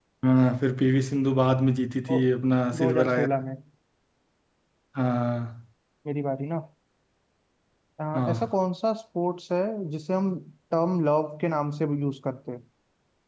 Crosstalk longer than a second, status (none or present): none